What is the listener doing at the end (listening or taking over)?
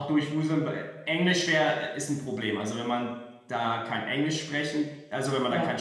listening